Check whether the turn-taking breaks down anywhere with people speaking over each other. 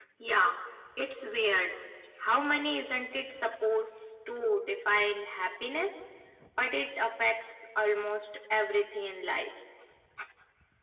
No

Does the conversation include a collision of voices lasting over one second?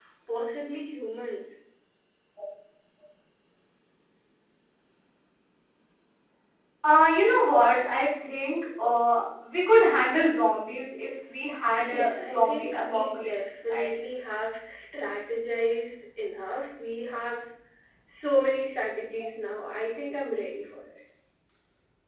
Yes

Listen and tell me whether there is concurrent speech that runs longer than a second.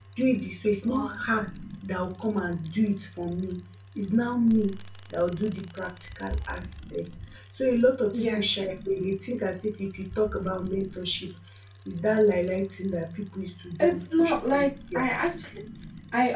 Yes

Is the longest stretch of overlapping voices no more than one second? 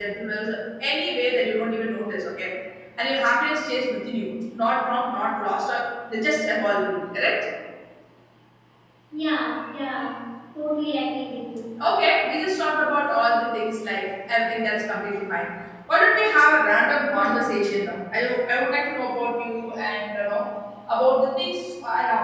Yes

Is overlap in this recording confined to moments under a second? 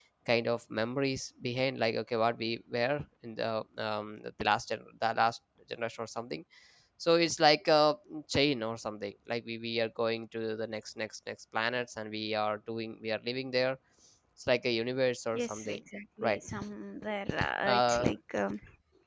Yes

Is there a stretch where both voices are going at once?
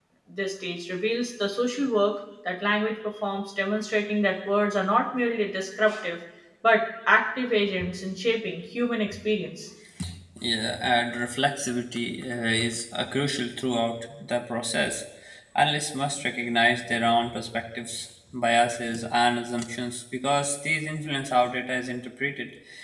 No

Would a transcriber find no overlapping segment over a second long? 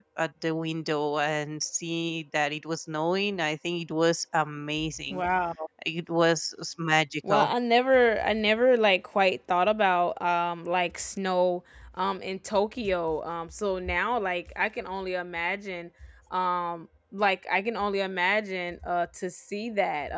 Yes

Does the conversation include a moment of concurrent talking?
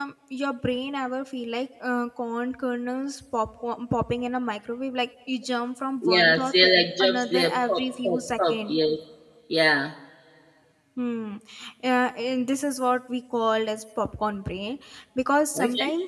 Yes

